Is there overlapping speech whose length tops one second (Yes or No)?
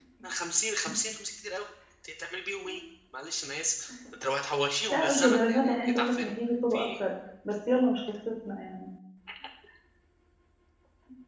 Yes